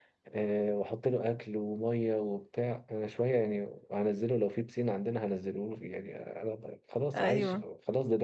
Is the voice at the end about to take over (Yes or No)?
No